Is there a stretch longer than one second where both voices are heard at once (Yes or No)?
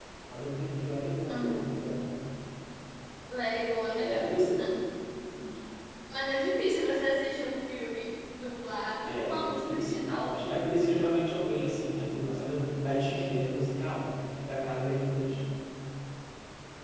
Yes